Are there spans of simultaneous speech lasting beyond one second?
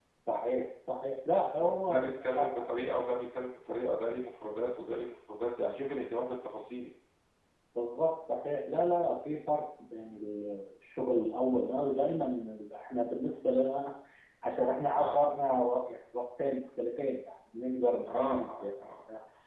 Yes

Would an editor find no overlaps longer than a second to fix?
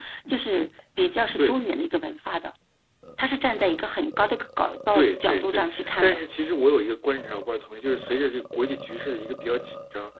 No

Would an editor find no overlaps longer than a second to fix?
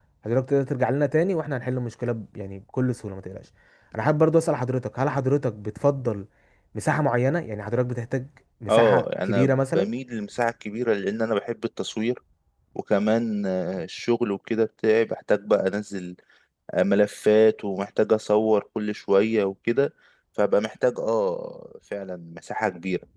No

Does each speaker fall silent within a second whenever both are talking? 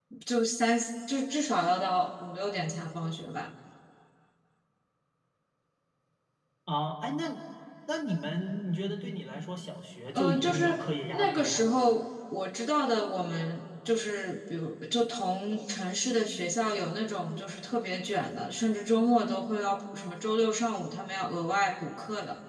No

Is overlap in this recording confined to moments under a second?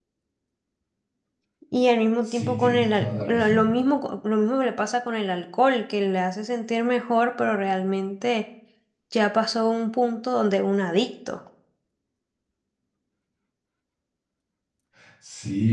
No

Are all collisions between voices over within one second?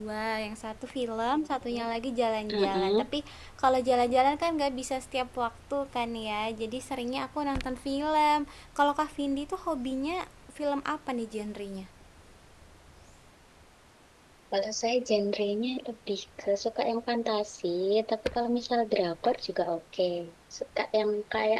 Yes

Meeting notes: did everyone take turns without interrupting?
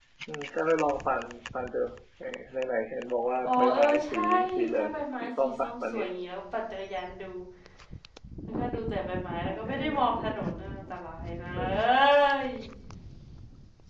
No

